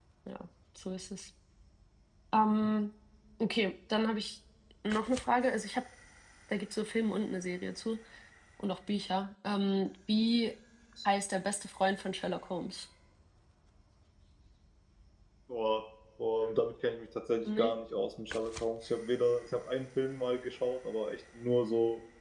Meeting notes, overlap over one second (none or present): none